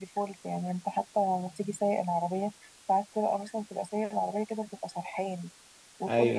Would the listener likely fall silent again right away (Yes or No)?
Yes